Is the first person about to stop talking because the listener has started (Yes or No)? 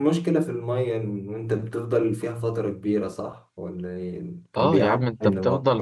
Yes